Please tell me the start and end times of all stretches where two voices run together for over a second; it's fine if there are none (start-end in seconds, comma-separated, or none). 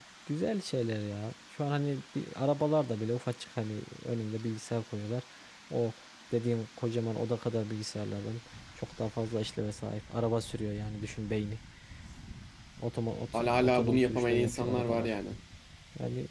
13.3-15.1